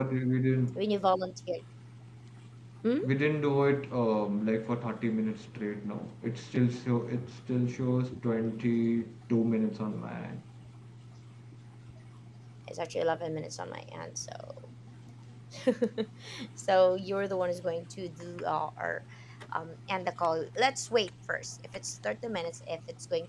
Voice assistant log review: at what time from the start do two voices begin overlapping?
none

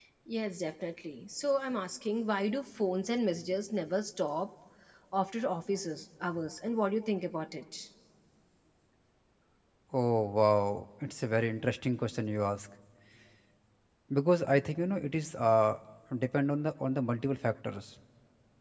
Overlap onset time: none

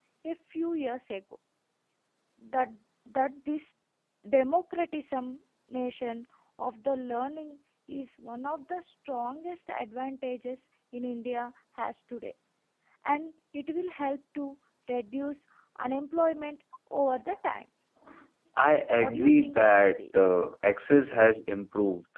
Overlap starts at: 18.9 s

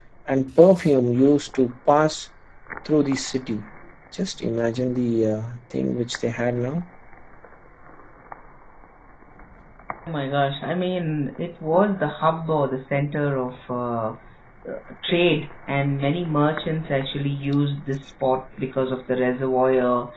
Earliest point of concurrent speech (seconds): none

